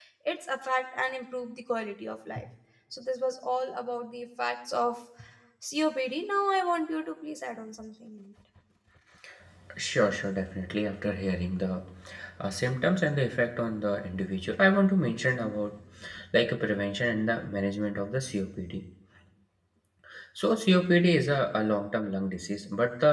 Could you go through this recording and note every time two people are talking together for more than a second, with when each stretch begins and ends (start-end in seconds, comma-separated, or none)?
none